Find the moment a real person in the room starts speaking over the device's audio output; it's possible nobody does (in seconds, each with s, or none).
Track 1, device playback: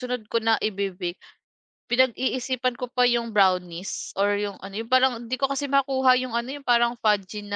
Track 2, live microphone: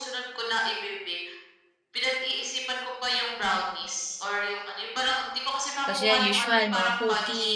5.8 s